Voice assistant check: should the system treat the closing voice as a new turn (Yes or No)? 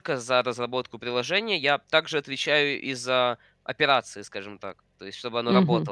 No